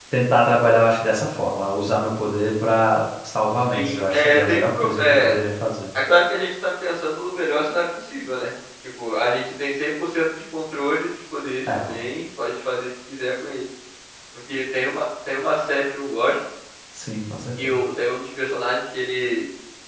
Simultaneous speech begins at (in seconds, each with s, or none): 3.7 s